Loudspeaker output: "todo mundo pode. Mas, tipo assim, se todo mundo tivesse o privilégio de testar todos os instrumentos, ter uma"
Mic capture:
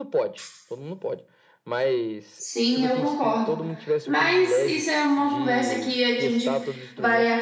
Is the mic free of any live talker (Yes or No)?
No